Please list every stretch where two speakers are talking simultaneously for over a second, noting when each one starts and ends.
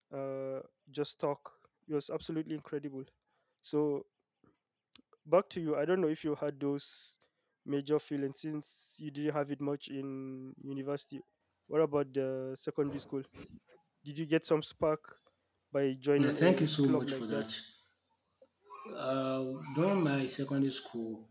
16.2-17.5

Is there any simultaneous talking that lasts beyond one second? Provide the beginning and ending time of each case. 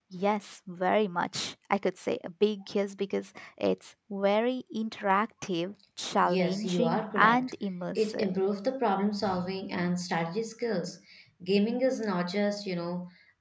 6.2-7.5

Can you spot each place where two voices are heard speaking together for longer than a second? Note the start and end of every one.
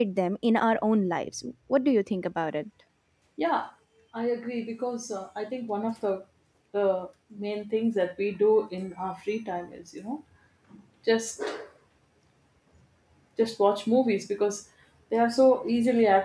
none

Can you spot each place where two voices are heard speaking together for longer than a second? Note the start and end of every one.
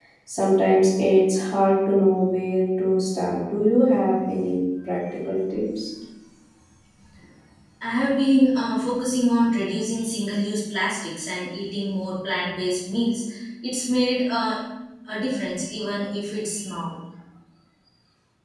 none

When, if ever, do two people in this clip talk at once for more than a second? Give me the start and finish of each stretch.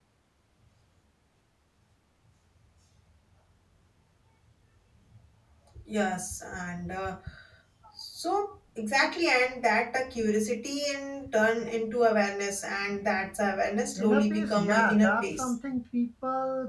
14.0-15.5

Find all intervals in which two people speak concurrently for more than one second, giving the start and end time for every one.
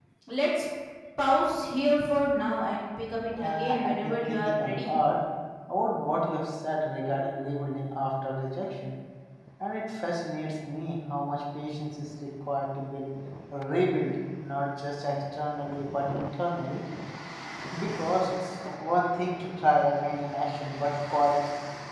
3.4-4.9

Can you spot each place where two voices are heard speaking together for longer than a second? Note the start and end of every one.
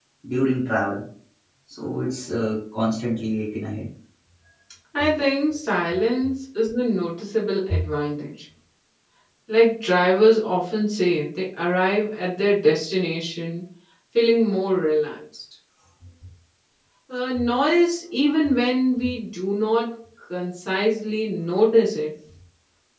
none

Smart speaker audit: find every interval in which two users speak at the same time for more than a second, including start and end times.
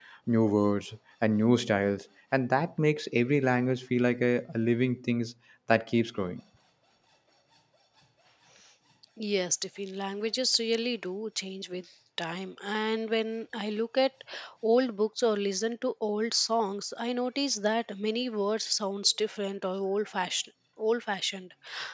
none

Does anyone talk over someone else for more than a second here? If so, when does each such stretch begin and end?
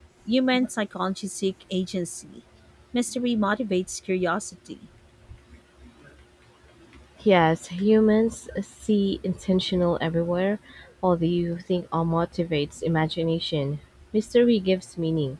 none

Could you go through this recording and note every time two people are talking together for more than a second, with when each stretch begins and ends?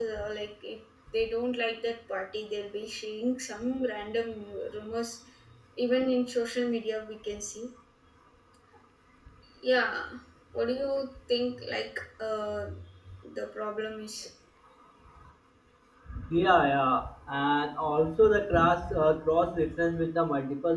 none

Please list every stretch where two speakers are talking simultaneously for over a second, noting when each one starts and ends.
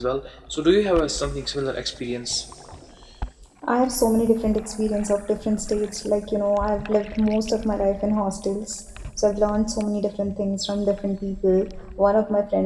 none

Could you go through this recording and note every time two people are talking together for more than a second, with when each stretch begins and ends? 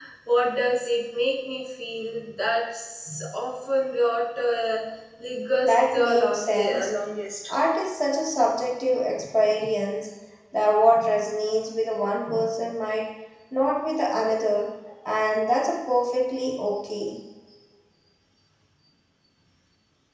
5.6-6.9

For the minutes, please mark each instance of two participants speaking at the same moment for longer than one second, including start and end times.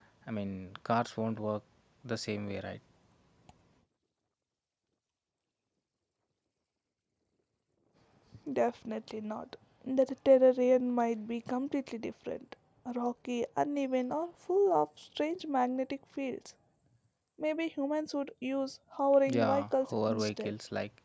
19.3-20.5

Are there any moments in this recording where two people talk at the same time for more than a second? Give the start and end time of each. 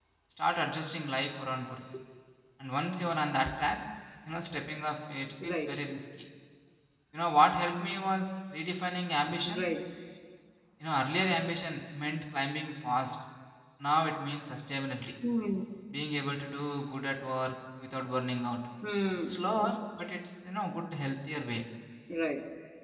none

